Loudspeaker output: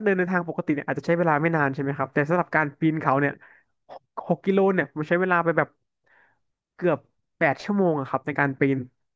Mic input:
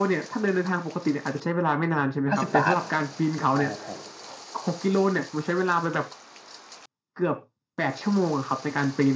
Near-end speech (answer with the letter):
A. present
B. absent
A